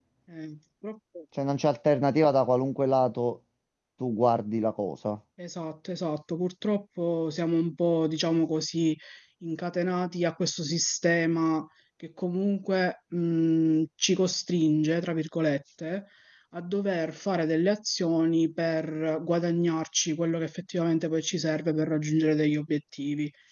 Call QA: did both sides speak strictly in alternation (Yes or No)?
Yes